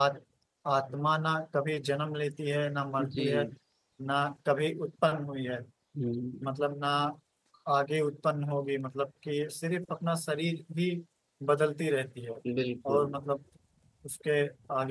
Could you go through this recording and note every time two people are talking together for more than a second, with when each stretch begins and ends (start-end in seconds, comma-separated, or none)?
none